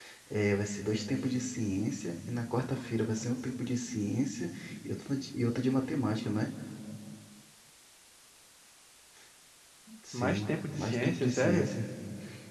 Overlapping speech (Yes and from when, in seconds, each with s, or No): Yes, from 10.1 s